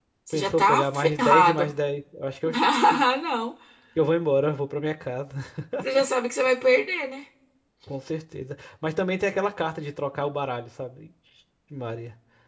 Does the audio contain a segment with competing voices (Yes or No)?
Yes